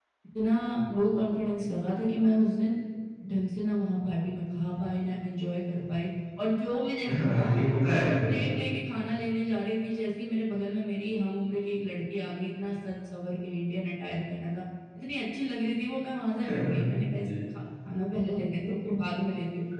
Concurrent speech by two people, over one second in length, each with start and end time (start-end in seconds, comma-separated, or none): 7.2-8.7